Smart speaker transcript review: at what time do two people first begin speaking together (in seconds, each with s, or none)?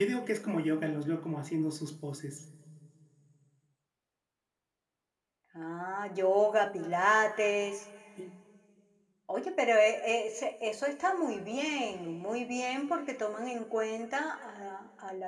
none